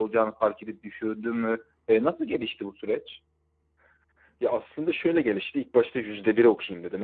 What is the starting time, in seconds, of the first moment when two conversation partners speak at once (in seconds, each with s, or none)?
none